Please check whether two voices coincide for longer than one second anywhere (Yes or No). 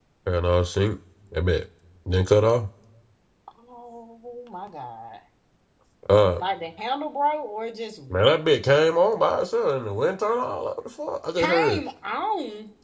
No